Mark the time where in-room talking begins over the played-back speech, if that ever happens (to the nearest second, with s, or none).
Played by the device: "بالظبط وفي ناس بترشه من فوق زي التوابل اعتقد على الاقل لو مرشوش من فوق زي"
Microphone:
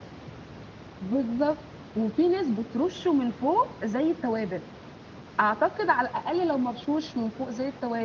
none